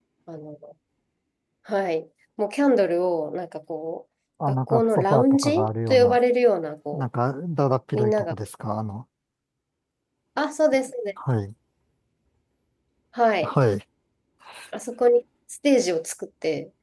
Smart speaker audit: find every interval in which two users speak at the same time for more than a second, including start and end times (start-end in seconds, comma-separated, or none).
4.7-6.2